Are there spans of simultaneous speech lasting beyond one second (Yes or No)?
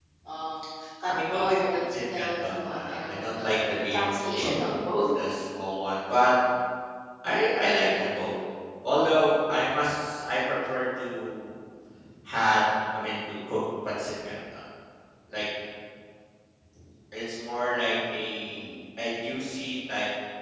Yes